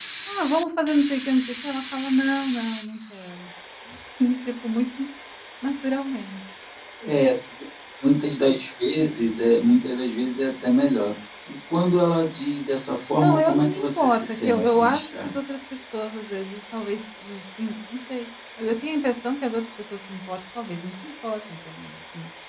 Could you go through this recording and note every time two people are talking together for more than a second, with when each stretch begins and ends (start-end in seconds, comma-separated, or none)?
13.2-15.3